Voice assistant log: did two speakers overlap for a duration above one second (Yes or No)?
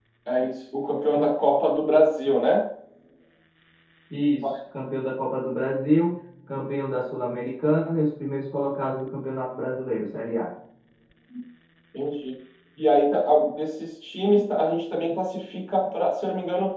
No